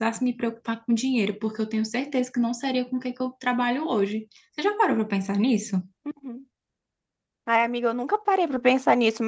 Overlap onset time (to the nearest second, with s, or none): none